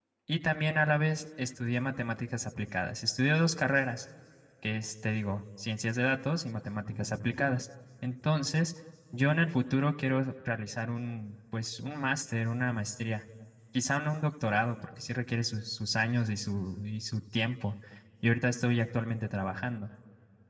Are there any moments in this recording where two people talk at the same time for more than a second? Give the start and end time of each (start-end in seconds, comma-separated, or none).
none